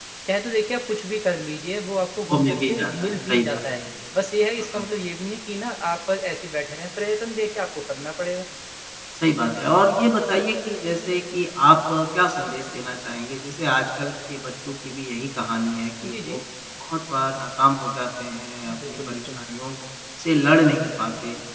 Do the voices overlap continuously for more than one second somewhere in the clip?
Yes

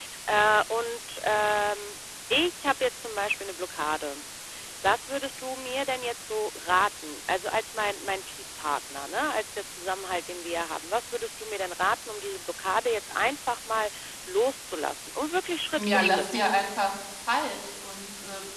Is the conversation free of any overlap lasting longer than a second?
Yes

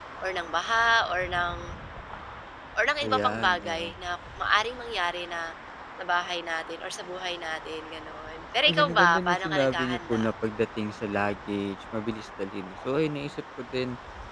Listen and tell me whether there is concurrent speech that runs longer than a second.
Yes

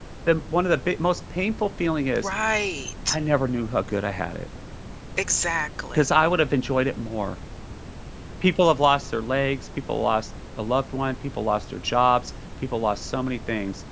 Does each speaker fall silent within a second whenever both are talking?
Yes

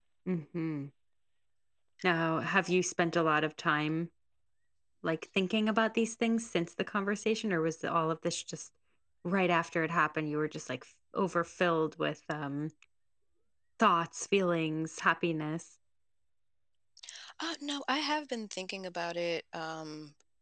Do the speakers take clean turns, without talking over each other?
Yes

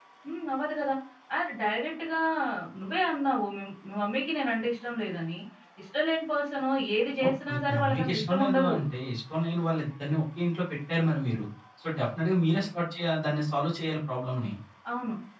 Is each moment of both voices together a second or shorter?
No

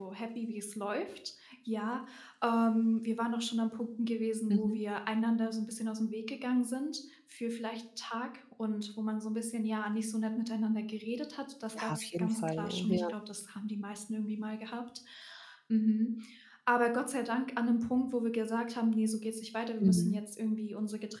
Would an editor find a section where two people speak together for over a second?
Yes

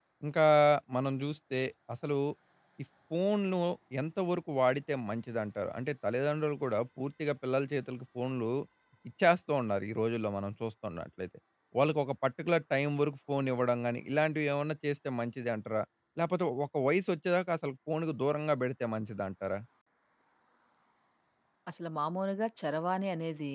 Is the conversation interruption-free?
Yes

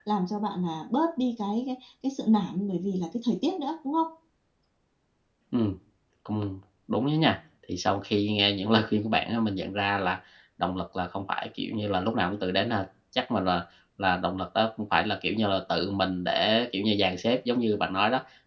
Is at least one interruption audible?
No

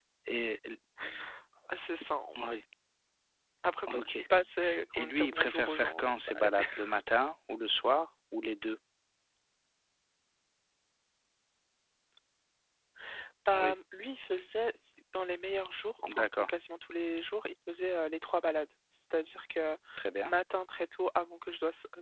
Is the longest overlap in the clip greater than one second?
Yes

